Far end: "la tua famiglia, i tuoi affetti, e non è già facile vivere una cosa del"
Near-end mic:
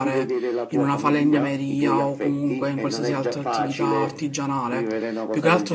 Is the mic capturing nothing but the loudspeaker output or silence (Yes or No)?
No